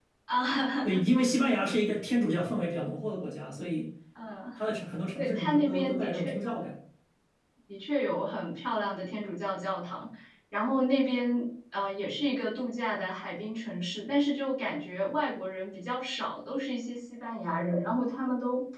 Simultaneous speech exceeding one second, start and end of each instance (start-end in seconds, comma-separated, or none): 5.2-6.6